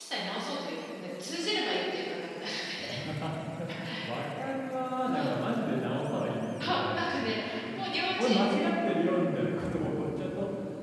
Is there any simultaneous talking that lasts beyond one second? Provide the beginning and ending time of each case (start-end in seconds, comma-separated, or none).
none